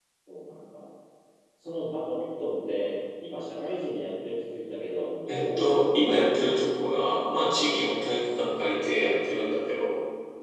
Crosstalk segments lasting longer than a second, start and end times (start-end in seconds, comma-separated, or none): 5.3-6.6